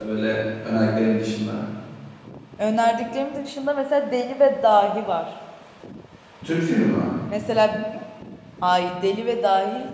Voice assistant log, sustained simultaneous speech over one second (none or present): none